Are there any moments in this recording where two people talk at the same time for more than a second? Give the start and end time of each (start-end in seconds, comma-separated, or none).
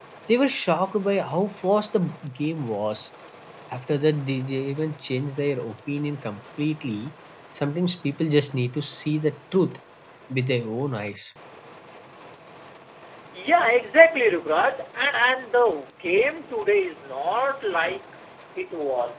none